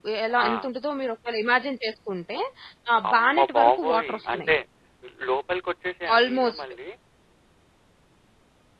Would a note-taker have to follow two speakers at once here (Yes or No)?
Yes